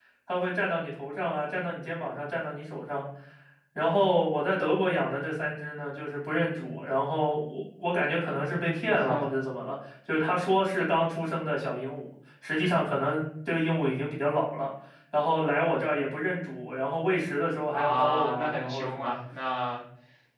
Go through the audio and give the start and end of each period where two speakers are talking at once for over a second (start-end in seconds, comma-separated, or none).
17.7-19.1